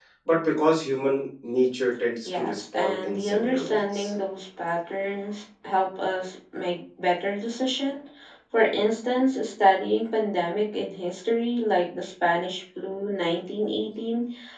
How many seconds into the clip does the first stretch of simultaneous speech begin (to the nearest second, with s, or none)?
2 s